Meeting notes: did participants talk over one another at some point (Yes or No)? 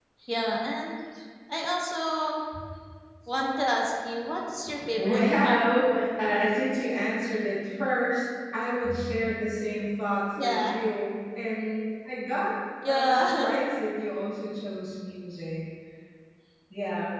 Yes